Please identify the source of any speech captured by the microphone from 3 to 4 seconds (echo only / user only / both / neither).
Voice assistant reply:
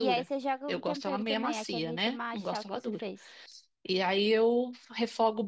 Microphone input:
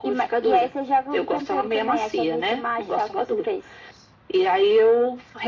echo only